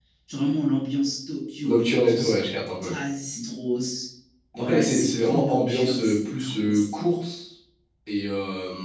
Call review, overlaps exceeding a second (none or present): present